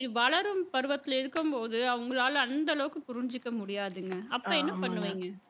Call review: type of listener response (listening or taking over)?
taking over